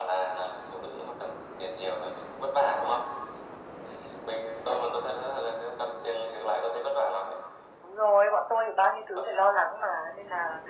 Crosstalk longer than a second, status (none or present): none